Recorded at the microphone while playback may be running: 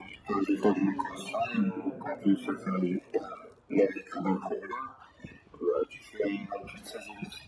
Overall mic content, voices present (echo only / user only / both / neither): both